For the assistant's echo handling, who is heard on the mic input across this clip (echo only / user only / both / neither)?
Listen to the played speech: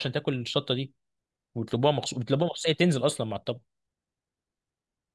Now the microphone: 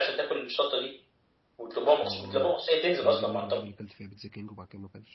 both